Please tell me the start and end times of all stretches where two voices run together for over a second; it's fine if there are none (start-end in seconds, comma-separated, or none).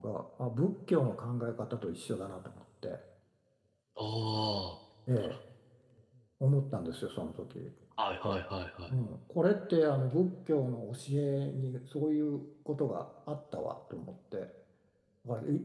none